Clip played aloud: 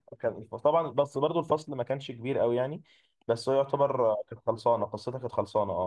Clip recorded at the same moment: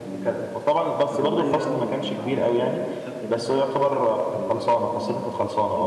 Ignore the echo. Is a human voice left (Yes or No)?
Yes